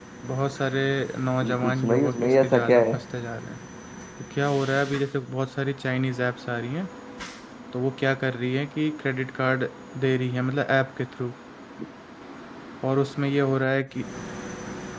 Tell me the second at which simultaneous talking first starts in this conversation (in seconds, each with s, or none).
1.4 s